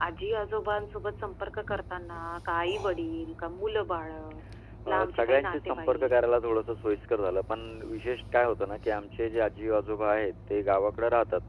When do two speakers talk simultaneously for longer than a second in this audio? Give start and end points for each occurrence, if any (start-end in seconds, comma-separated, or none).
4.9-6.1